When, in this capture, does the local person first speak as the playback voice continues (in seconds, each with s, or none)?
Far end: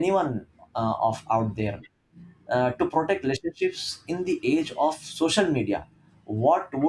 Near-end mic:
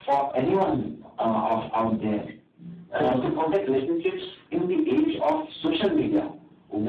3.0 s